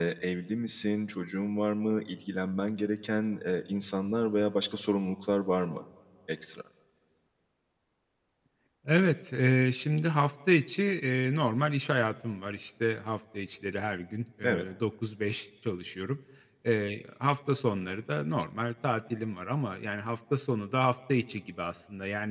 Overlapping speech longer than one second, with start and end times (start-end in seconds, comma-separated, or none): none